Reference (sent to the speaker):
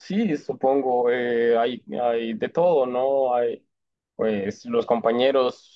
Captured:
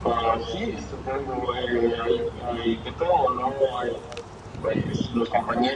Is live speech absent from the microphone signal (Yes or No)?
Yes